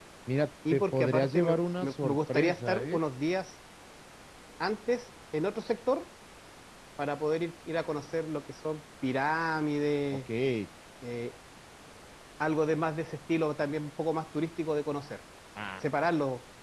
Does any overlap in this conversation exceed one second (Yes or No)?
Yes